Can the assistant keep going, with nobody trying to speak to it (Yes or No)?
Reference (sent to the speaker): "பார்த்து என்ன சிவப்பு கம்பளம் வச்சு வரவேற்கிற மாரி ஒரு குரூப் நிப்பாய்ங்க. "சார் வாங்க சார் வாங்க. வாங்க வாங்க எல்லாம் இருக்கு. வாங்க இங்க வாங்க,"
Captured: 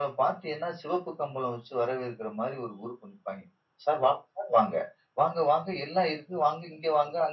Yes